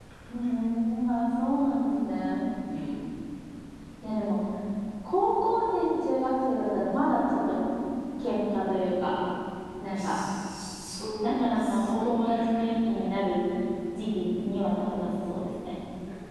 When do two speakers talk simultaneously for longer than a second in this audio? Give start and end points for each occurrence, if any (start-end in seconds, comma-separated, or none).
11.2-12.7